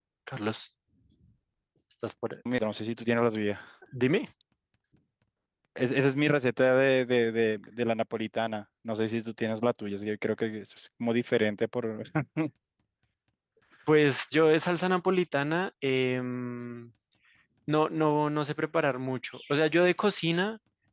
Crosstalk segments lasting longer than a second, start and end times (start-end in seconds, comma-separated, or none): none